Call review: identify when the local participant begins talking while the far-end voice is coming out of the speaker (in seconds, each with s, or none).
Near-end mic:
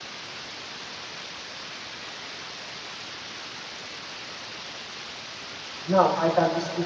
5.9 s